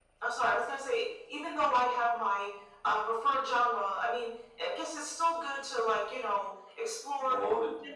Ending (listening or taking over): listening